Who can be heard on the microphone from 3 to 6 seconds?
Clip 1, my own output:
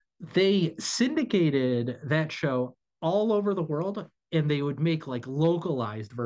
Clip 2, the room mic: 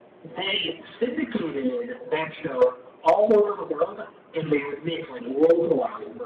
echo only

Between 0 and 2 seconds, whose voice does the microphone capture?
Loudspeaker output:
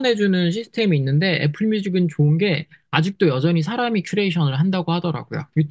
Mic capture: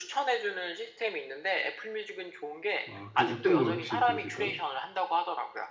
echo only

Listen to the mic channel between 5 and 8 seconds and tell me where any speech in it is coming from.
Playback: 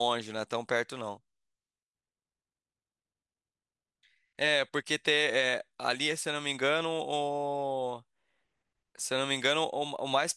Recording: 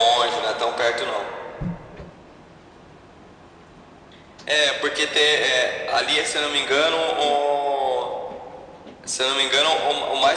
echo only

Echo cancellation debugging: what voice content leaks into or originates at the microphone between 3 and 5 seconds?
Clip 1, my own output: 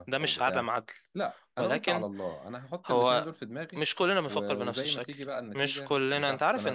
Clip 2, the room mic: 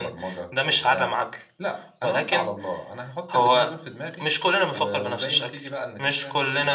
echo only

